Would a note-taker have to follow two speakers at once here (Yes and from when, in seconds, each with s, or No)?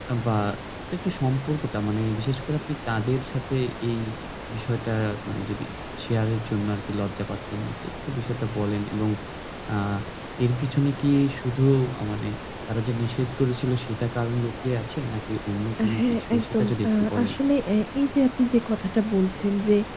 Yes, from 15.8 s